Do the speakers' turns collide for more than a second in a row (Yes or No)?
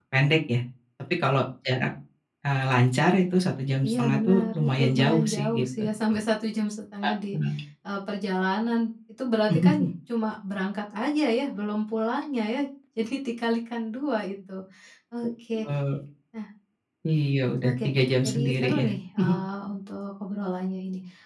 Yes